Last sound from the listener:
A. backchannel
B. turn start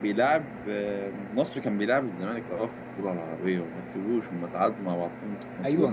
B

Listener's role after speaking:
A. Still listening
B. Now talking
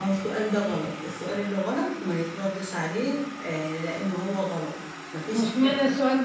B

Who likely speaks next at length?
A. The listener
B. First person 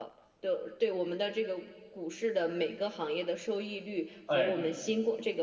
B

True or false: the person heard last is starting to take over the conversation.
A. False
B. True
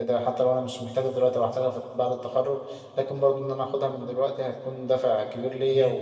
B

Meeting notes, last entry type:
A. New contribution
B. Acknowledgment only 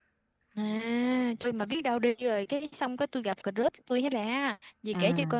B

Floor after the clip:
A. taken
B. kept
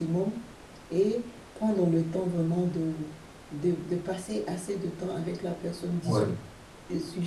B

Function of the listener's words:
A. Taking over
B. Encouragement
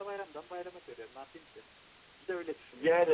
A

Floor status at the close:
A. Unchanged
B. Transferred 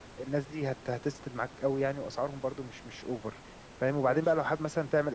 A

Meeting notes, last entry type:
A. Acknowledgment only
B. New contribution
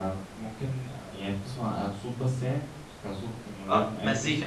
B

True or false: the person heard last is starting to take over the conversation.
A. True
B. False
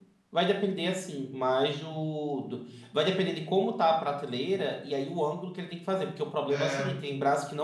B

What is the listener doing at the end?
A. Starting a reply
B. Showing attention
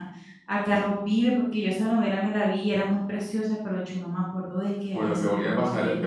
A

